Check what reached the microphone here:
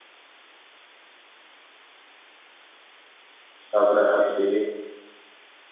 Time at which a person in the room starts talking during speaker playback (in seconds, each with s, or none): 3.7 s